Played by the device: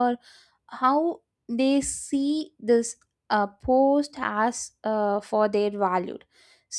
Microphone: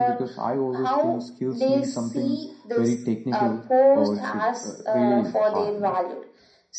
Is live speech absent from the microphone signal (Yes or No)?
No